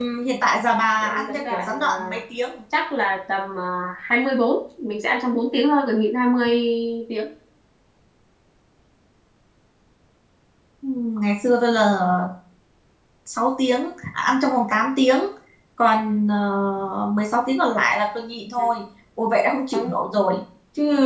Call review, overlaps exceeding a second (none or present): present